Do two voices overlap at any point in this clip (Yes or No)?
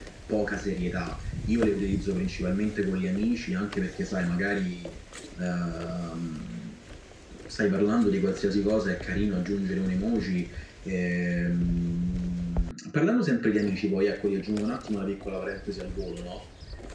No